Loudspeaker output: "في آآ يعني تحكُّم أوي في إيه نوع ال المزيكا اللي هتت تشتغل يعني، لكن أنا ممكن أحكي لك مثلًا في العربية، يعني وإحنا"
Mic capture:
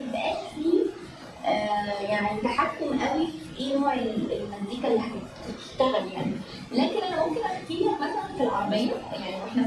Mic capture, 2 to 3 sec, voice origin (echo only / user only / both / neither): echo only